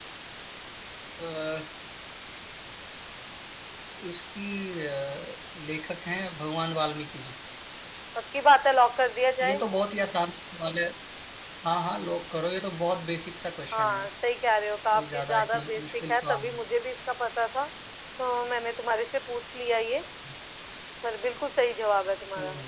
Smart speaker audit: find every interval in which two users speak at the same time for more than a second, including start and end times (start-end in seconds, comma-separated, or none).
14.9-16.6